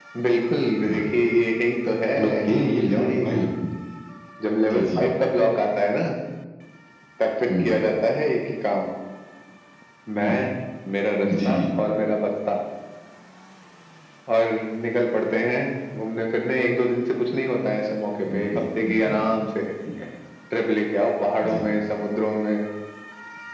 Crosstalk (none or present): present